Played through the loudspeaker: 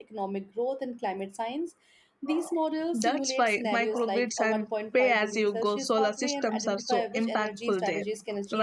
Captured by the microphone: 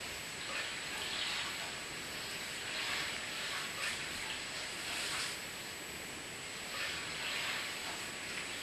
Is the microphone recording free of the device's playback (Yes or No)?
Yes